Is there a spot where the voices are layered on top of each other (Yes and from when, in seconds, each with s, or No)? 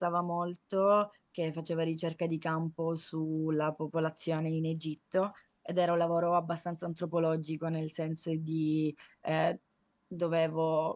No